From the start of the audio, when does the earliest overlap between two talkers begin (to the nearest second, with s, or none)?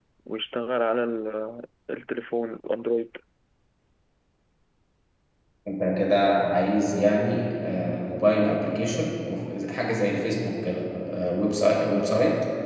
none